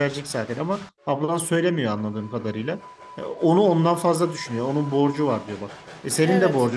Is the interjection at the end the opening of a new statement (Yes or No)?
No